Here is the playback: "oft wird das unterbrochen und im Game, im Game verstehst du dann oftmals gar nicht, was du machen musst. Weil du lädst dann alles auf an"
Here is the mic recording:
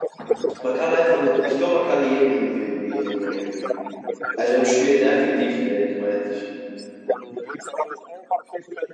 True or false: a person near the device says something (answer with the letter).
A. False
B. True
B